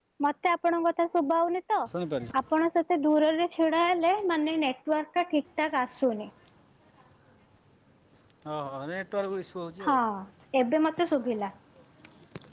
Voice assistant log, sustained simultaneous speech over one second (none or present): none